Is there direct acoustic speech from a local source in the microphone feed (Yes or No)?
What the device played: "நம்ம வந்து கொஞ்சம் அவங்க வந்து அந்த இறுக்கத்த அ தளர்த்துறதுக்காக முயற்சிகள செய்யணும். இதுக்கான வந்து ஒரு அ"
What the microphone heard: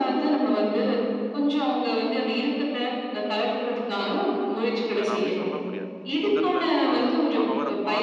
Yes